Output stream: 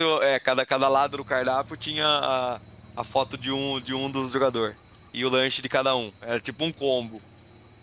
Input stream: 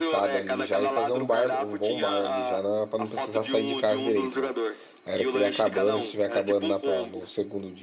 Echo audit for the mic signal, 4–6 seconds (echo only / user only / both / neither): both